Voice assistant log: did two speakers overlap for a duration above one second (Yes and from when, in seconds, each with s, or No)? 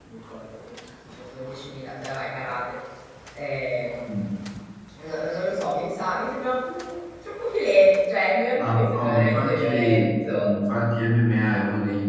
Yes, from 8.6 s